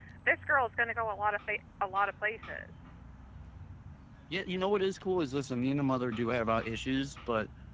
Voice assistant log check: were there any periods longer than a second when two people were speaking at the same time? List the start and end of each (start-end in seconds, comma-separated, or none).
none